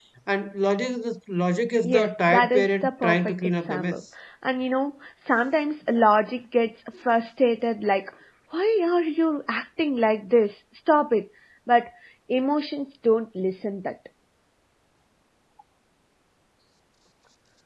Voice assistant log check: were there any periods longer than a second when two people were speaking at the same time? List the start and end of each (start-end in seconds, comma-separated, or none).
1.8-4.0